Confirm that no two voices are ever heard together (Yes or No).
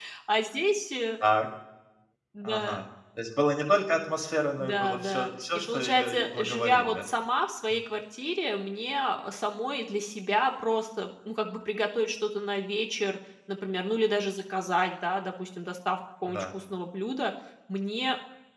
No